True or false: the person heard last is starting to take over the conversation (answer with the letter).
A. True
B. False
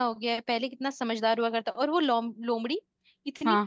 B